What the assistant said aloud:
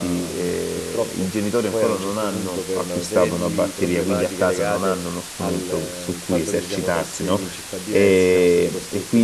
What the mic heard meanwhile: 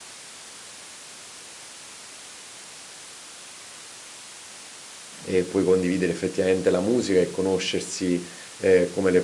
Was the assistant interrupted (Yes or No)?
Yes